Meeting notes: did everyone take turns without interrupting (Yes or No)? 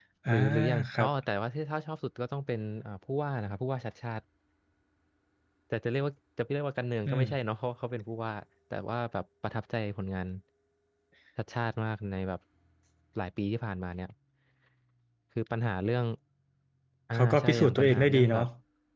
No